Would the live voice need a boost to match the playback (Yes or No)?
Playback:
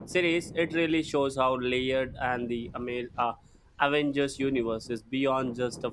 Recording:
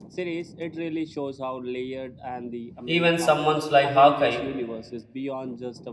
No